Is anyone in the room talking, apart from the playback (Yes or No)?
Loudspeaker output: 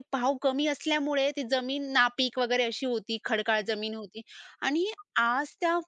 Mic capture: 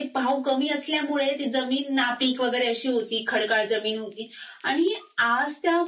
No